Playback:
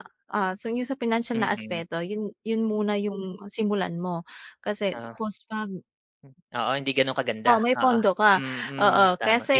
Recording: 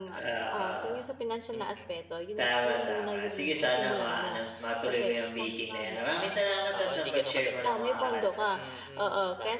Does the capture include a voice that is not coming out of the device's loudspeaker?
Yes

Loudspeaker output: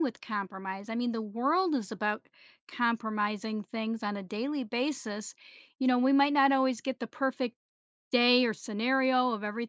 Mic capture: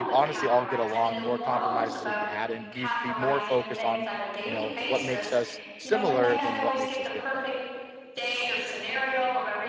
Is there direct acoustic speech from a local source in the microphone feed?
Yes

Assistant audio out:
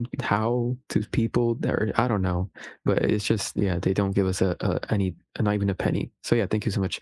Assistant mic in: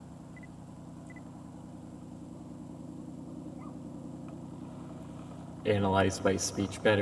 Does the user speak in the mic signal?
Yes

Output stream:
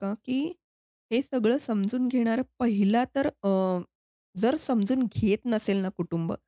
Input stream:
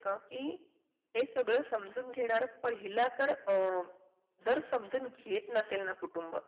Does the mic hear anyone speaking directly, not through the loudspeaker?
No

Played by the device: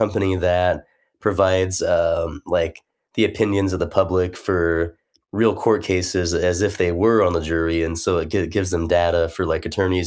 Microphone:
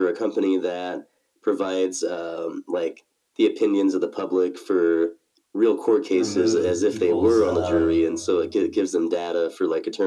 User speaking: Yes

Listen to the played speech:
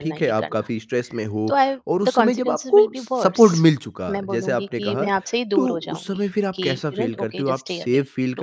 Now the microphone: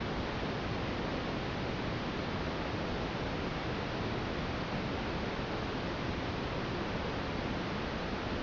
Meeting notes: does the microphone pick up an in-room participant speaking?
No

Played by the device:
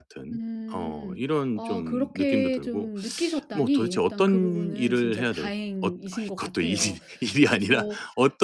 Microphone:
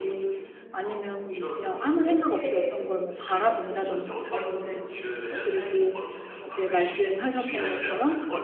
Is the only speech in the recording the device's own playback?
No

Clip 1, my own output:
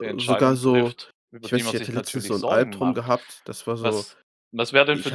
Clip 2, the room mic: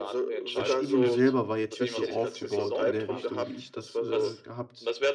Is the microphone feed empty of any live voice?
No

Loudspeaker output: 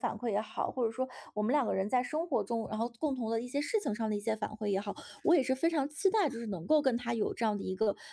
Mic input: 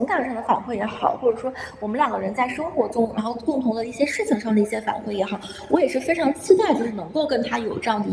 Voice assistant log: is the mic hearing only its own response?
Yes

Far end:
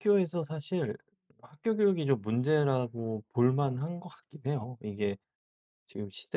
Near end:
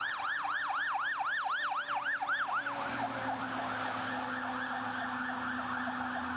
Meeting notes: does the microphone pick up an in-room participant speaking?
No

